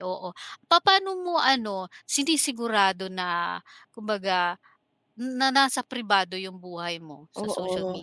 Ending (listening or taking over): taking over